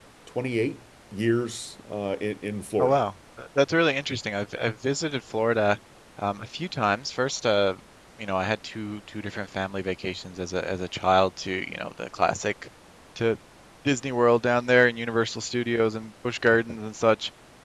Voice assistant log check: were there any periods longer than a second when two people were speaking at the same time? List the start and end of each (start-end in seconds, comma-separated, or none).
none